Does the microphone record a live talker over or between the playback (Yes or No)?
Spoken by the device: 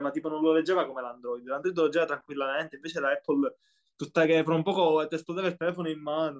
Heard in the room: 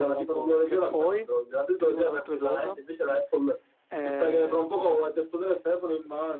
Yes